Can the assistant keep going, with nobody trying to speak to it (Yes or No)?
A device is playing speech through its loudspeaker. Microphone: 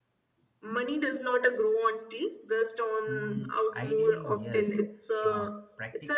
No